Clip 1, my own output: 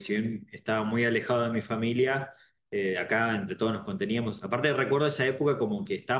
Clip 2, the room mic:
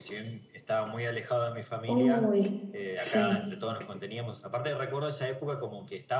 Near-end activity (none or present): present